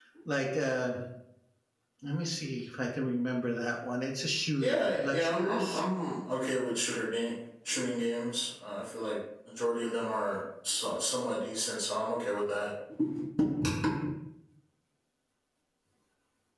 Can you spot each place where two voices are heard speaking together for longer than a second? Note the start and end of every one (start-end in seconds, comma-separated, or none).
4.6-5.8